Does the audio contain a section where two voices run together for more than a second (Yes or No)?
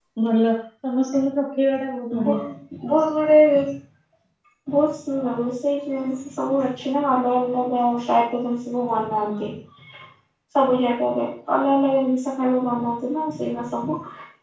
No